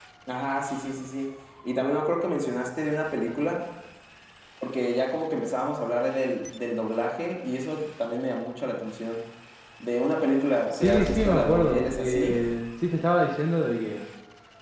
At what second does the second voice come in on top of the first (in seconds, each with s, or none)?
10.7 s